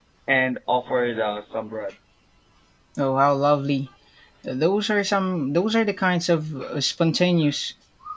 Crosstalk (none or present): none